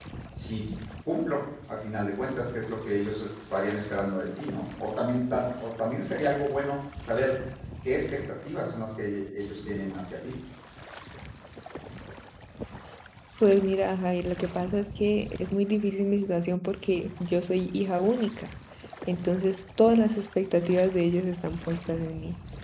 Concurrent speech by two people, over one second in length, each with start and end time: none

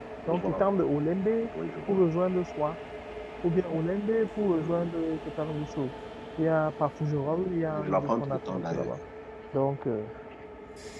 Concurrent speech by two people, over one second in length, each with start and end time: 7.7-8.9

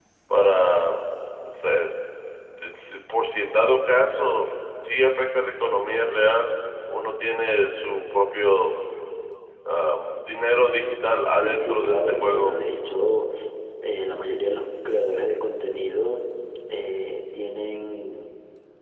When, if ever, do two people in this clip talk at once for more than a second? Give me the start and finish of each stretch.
11.3-12.6

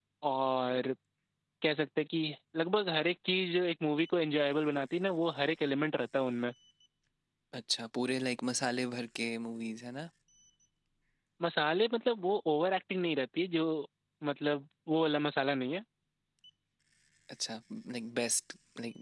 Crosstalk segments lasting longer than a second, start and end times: none

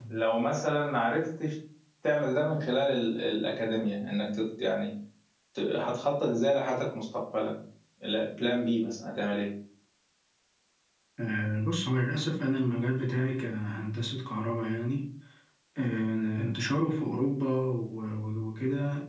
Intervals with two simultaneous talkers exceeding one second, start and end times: none

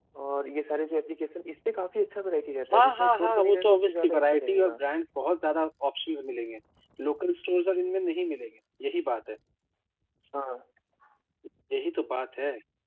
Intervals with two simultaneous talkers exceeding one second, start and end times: 2.7-4.8

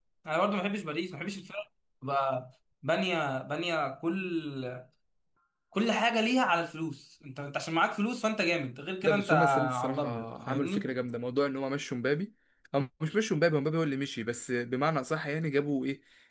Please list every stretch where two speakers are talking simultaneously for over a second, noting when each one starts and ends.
9.0-10.9

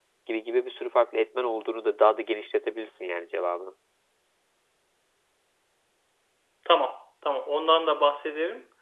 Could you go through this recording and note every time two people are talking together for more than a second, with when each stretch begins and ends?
none

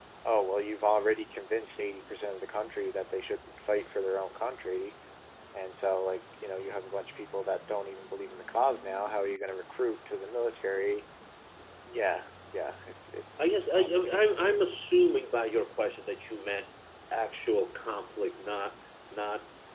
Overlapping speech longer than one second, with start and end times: 13.4-14.6

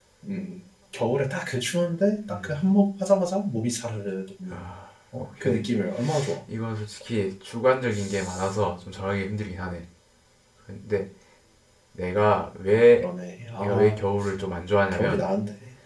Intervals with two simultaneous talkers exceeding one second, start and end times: none

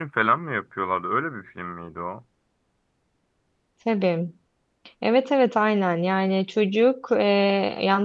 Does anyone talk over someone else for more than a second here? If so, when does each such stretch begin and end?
none

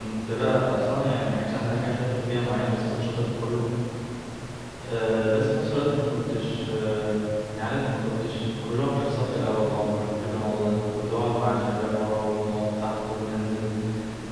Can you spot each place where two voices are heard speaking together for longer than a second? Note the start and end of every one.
none

